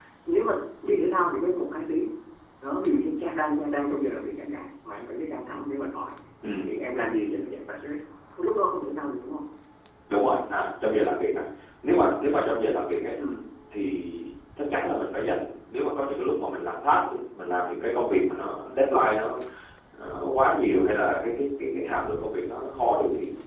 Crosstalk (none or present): none